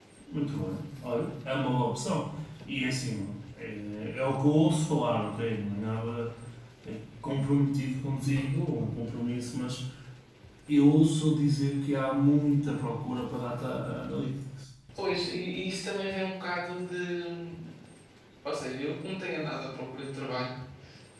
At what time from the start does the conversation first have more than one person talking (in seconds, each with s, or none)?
none